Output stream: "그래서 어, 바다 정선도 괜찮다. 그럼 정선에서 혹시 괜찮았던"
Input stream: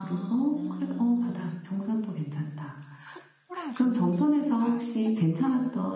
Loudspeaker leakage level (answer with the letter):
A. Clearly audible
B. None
A